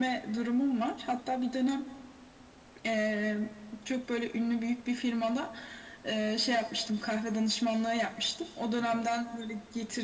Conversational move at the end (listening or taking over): listening